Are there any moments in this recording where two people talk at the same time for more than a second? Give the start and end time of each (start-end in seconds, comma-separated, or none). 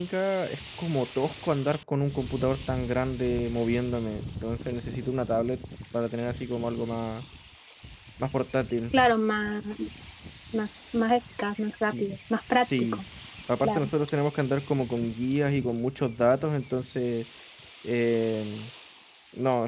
none